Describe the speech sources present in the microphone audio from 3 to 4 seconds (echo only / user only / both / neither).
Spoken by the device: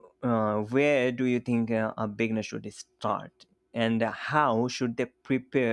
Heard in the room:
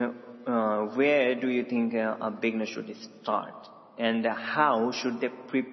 echo only